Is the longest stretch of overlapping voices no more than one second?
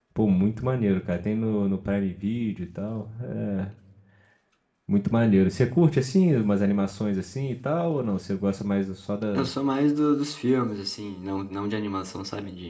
Yes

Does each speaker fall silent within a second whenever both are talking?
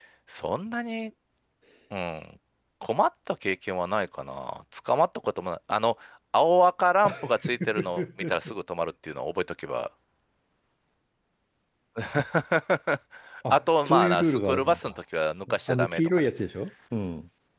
No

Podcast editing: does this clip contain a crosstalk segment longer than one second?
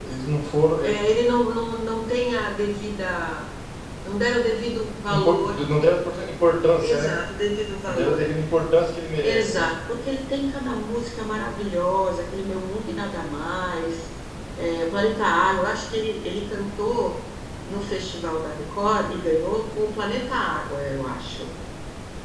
No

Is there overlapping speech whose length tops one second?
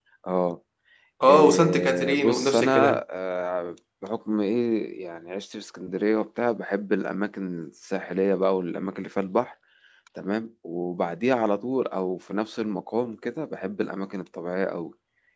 Yes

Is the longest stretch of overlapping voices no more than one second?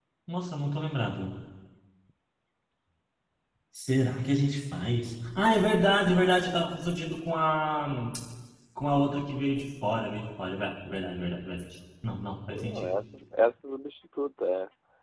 Yes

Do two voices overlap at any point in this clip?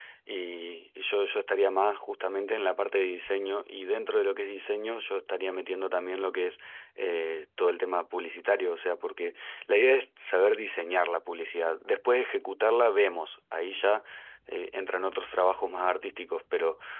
No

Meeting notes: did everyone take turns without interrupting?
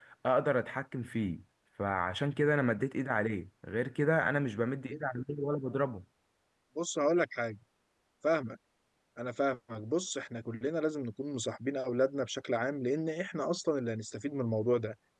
Yes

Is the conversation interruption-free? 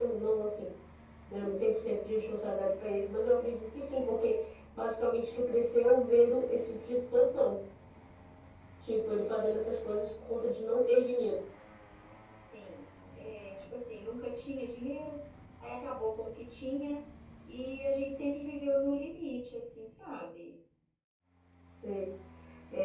Yes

